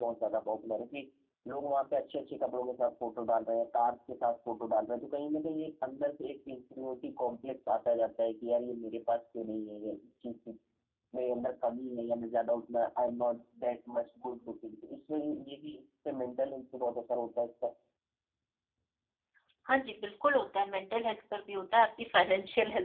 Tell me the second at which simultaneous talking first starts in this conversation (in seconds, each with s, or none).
none